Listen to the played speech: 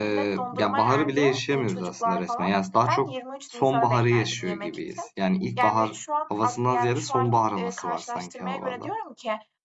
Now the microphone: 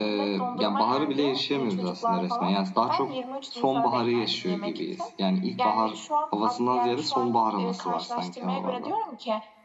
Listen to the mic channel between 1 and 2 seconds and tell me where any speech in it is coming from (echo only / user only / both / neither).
echo only